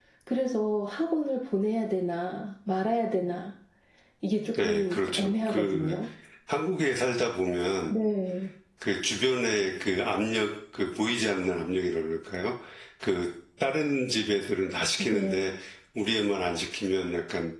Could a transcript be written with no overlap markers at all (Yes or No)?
No